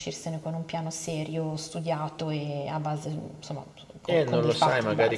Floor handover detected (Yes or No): Yes